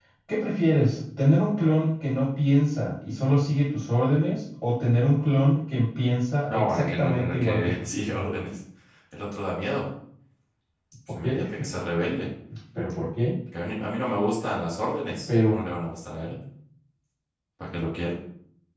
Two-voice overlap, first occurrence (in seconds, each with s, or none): 6.5 s